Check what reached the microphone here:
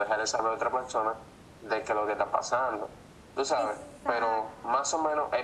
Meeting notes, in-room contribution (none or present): present